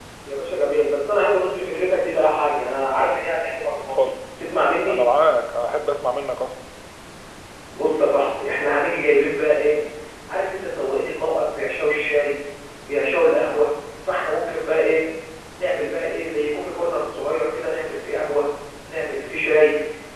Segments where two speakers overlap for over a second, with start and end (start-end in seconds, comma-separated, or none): none